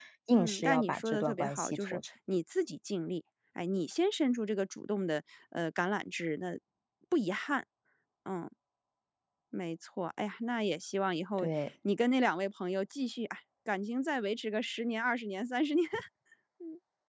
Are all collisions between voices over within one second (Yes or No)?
No